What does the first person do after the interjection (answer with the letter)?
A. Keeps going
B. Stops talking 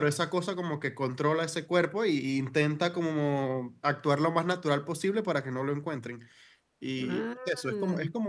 A